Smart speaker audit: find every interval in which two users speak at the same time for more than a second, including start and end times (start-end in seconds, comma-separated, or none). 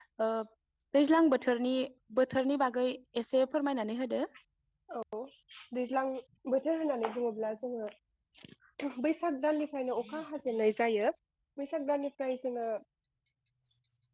none